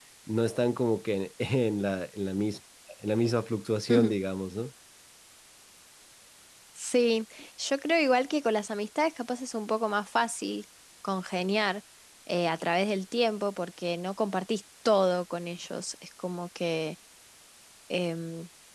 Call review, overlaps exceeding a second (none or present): none